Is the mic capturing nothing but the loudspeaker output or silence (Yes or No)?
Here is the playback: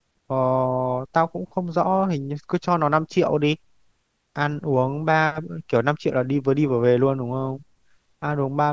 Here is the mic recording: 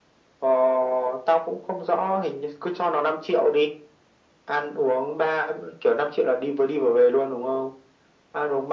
Yes